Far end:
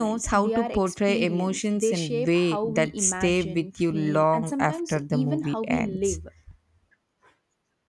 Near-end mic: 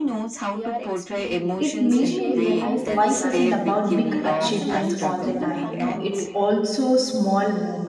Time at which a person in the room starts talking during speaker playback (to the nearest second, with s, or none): 2 s